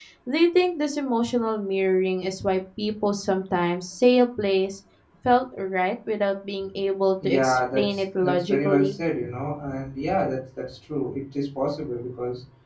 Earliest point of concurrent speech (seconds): 7.2 s

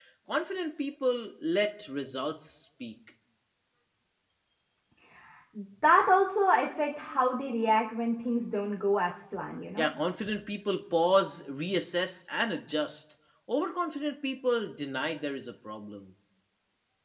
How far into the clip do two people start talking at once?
none

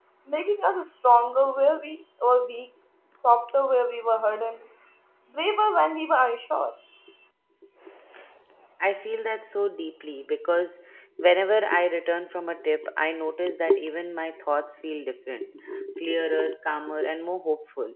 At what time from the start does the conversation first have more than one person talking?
none

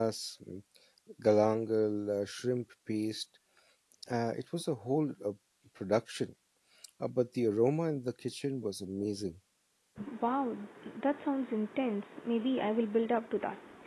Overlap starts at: none

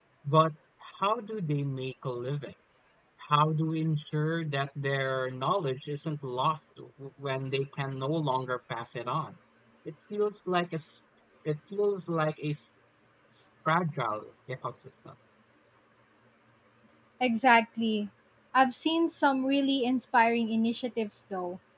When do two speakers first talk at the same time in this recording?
none

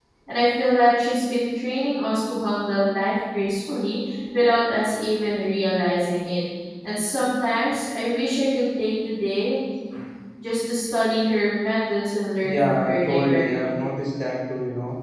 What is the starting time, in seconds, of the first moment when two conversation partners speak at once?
12.4 s

